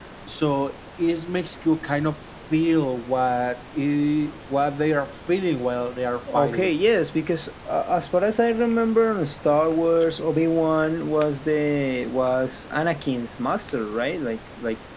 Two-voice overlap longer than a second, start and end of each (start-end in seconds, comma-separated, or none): none